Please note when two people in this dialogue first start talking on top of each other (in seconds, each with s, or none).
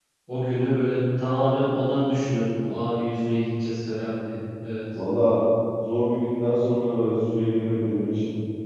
none